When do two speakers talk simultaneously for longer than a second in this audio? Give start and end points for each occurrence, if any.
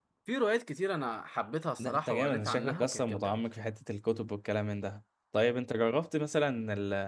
1.8-3.4

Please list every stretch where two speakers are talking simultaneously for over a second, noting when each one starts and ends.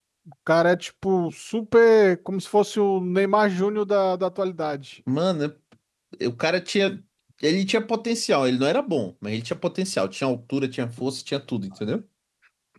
none

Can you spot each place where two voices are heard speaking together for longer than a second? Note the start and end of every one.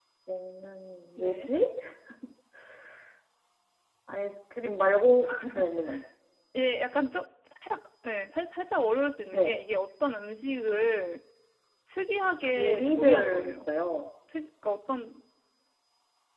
12.4-13.7

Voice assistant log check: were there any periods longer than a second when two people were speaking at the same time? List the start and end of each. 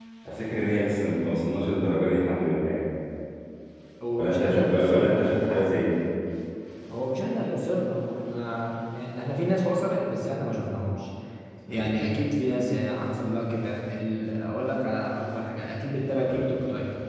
4.2-5.6

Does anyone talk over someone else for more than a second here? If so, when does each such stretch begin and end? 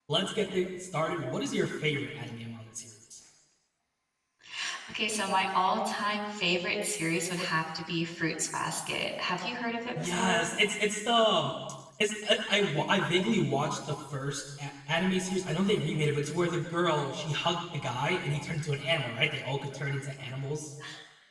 none

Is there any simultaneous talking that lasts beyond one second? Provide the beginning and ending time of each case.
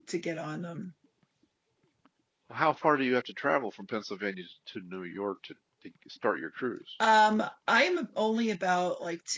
none

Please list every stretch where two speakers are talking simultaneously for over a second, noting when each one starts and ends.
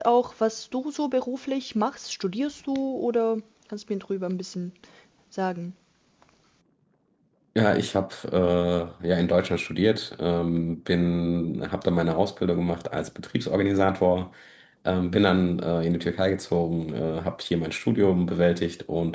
none

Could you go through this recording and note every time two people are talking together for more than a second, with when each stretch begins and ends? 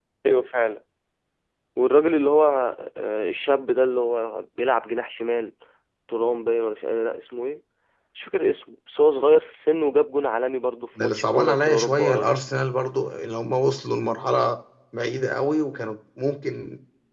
11.0-12.4

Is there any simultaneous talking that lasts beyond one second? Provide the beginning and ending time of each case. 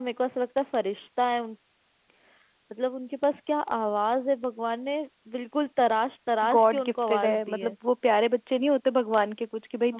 6.5-7.7

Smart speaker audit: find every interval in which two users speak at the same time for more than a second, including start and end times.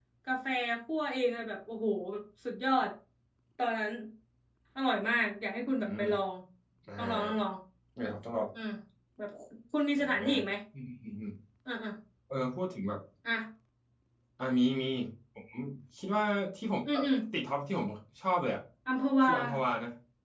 none

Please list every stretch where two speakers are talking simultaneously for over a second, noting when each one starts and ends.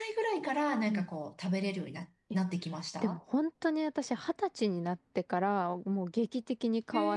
none

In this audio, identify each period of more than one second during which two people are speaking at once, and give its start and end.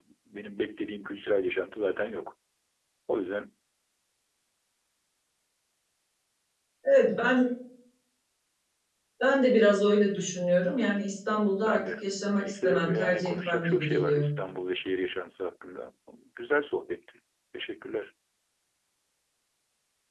12.4-14.3

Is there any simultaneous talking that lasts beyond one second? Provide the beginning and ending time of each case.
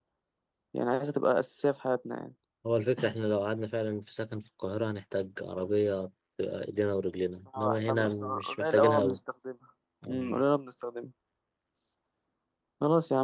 7.6-9.2

